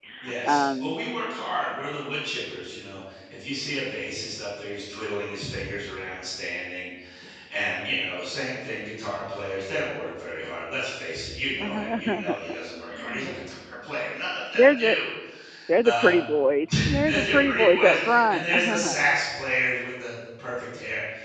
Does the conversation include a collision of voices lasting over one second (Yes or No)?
Yes